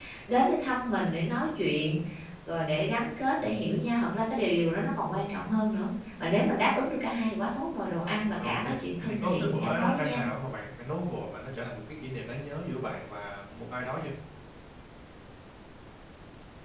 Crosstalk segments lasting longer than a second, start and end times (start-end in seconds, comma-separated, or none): 9.0-10.2